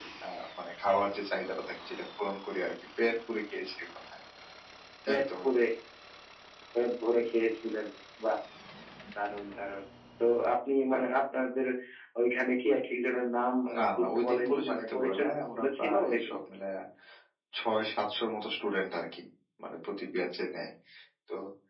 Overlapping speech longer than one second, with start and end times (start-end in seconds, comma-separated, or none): 13.8-16.4